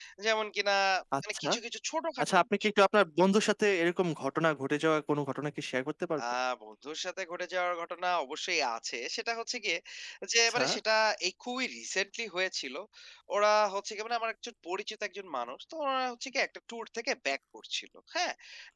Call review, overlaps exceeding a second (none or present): none